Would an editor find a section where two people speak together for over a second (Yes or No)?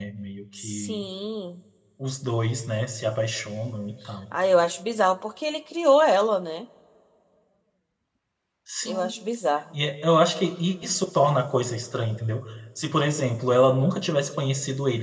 No